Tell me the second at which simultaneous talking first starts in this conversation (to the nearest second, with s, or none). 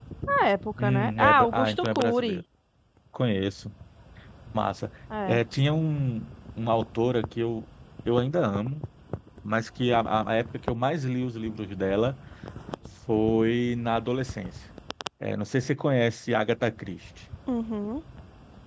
1 s